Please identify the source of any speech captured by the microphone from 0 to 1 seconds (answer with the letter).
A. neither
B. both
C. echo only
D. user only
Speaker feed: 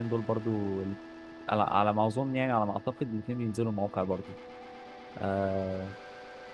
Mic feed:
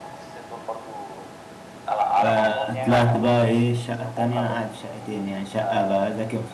C